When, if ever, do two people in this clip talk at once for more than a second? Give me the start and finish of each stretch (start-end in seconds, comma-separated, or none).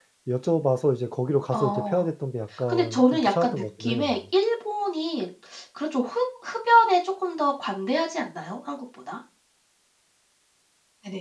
2.7-4.2